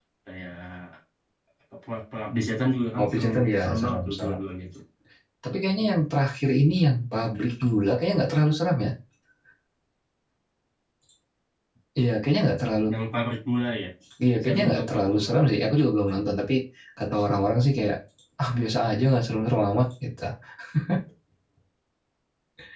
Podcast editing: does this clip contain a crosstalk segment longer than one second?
Yes, from 3.0 s

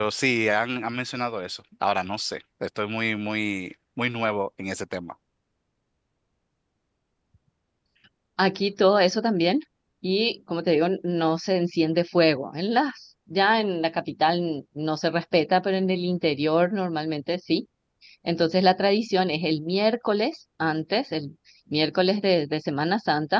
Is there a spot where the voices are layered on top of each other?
No

